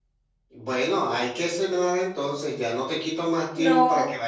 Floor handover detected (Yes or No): No